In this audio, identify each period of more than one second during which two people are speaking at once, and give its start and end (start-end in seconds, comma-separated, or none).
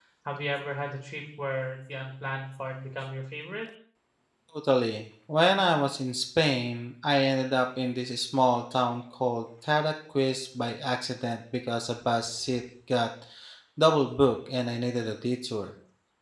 none